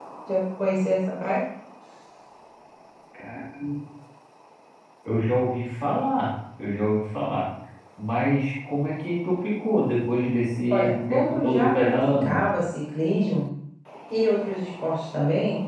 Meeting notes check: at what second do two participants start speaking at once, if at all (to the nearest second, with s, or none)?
11 s